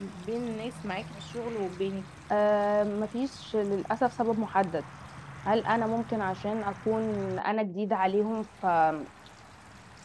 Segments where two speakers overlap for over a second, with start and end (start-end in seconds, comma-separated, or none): none